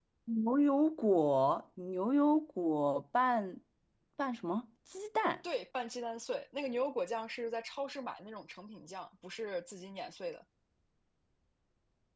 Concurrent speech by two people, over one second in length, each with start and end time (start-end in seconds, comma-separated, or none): none